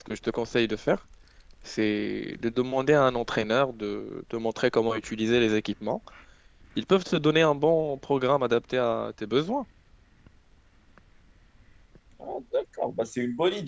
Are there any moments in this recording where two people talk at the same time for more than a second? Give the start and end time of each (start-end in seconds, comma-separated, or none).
none